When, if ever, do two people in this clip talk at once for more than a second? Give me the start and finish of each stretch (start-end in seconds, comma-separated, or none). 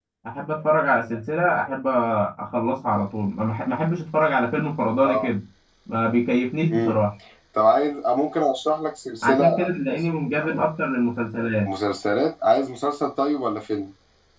none